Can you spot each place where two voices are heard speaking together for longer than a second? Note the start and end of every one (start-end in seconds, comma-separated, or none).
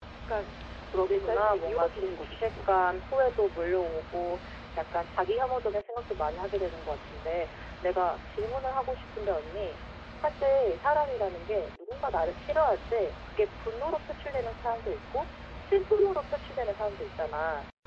1.0-2.5